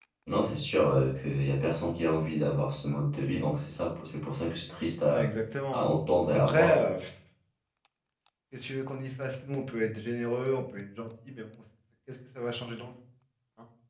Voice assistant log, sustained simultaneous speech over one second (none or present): none